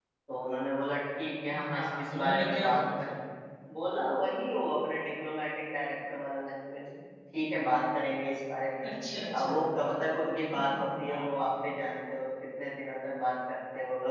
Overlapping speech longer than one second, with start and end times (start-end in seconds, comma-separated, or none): 1.6-3.1